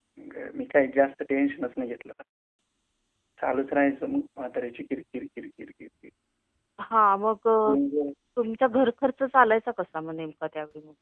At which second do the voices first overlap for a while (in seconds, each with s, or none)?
none